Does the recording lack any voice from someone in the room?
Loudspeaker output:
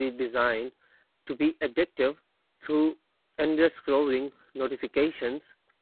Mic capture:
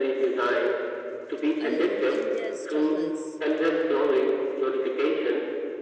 No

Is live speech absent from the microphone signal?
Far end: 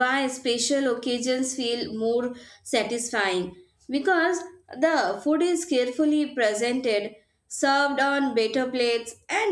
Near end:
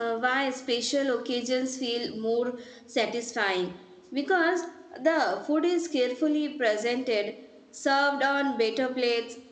Yes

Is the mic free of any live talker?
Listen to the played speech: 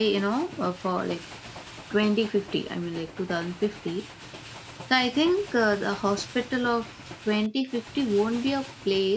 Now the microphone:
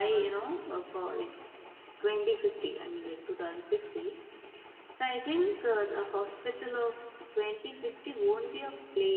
Yes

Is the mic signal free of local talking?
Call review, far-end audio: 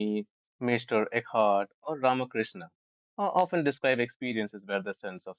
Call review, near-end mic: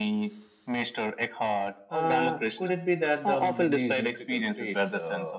No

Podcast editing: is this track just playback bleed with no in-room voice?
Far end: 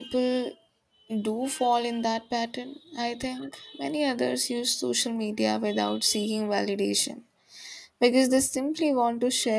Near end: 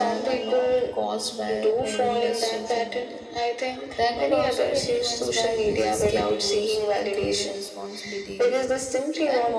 No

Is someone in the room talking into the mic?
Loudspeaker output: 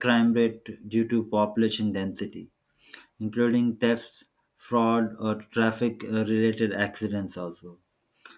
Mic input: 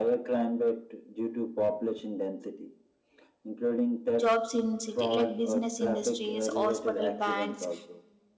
Yes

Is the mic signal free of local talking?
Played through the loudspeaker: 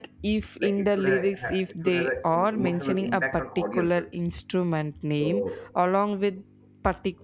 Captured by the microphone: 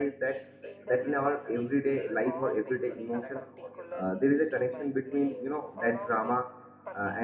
No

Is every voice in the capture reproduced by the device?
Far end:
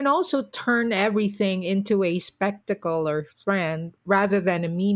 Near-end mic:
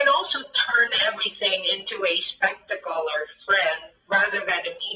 Yes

